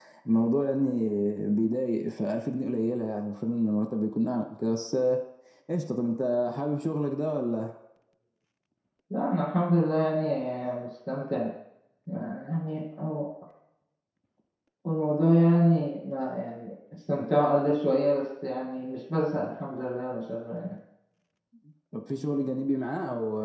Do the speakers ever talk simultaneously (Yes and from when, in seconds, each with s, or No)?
No